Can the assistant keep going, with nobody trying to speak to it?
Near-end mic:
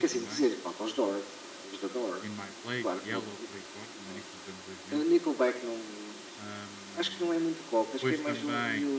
No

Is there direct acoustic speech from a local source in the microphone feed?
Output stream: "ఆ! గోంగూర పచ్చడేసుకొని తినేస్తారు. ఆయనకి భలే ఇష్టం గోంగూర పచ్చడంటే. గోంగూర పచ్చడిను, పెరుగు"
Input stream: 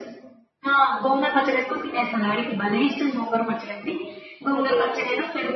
Yes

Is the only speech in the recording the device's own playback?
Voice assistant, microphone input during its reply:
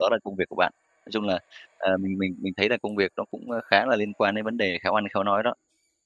No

